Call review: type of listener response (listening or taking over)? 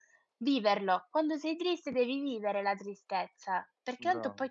listening